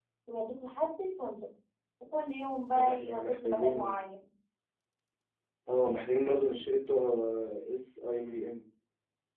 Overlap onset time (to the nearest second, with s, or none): 3 s